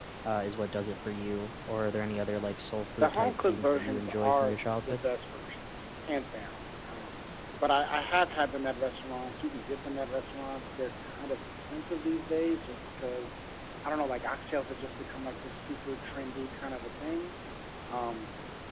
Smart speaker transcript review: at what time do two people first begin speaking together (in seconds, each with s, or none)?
3.0 s